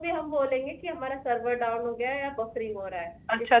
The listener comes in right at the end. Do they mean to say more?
Yes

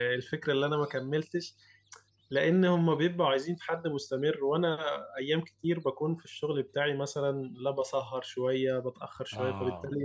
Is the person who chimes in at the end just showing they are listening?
Yes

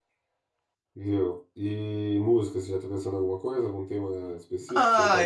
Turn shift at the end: Yes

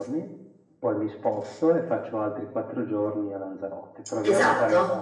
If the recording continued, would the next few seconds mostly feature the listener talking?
Yes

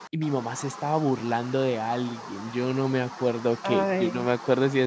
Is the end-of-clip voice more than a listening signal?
No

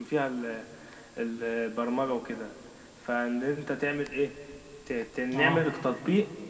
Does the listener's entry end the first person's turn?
No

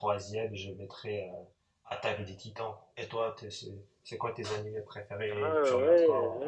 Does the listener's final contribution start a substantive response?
Yes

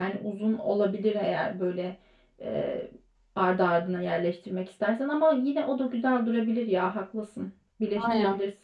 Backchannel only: No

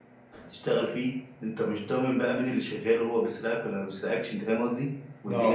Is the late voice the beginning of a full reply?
No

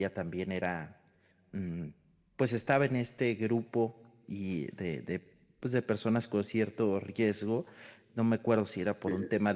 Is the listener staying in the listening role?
Yes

